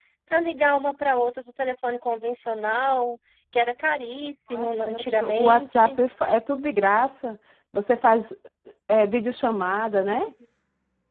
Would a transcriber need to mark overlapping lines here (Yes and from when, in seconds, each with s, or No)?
Yes, from 4.5 s